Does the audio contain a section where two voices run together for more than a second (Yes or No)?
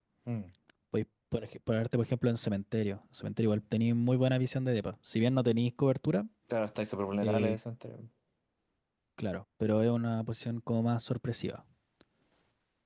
No